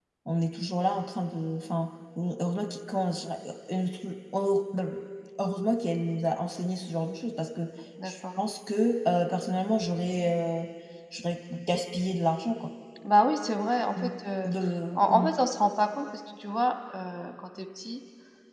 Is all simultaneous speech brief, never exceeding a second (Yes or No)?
Yes